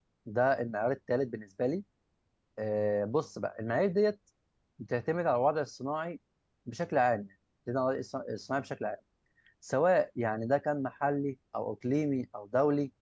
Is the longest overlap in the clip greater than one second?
No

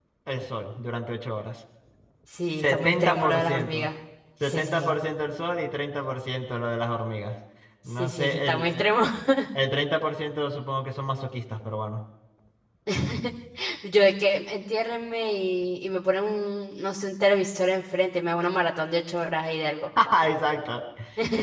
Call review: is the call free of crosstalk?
No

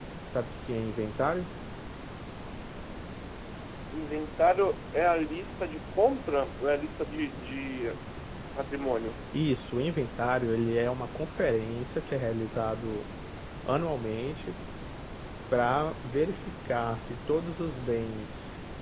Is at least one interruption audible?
No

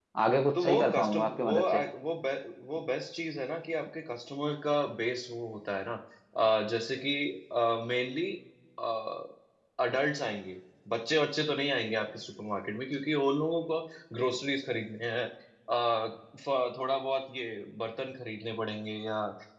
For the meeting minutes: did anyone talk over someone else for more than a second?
Yes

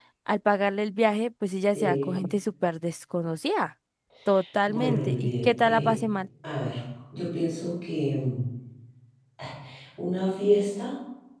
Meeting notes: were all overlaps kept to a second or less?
No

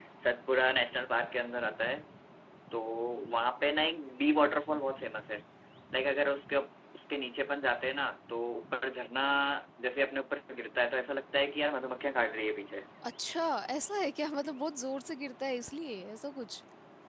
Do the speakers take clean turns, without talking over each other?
Yes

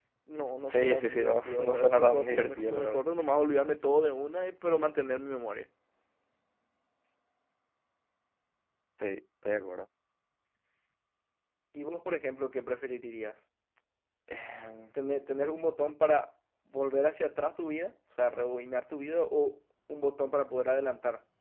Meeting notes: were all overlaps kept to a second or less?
No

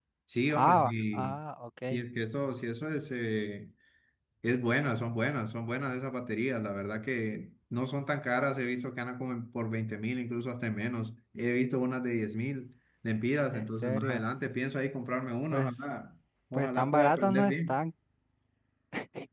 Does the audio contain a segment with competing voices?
Yes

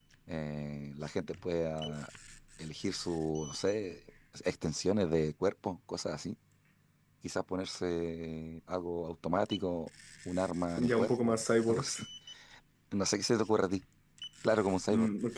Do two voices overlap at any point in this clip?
Yes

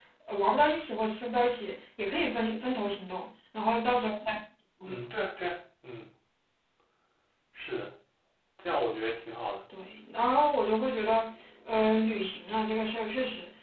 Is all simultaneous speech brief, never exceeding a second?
Yes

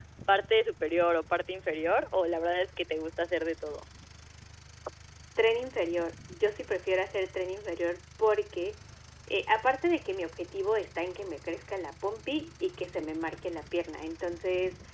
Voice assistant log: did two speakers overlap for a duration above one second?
No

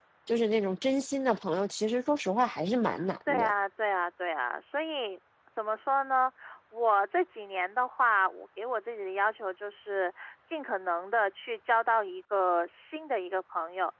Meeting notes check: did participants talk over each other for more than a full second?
No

